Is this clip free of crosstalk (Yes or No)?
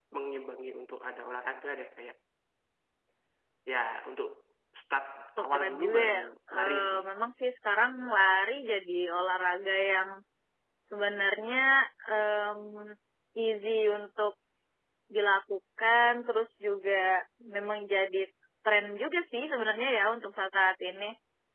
No